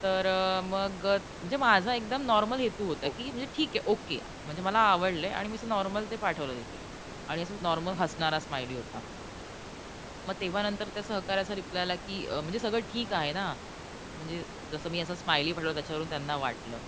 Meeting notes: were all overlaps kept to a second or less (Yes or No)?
Yes